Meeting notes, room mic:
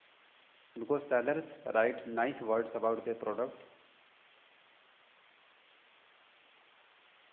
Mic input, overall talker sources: user only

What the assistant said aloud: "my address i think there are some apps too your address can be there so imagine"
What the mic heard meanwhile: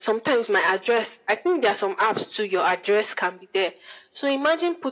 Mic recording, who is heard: echo only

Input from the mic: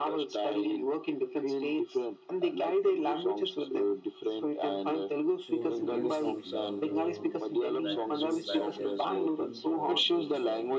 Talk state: both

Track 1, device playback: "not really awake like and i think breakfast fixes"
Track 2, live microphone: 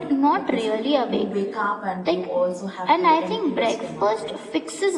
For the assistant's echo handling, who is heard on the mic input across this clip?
both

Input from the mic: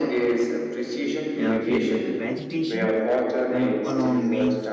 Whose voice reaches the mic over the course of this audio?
both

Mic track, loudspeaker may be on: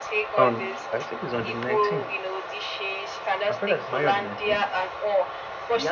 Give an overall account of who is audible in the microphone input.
both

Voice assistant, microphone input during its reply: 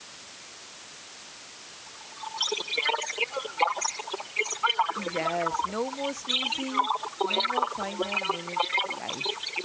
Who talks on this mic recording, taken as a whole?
both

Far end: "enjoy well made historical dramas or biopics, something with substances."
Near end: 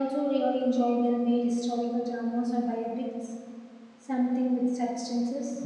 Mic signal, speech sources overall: echo only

